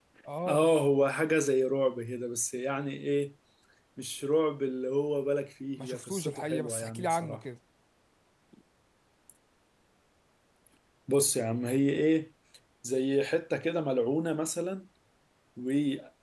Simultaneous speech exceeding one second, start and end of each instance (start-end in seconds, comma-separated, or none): 5.8-7.4